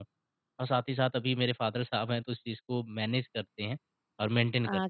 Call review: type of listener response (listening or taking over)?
taking over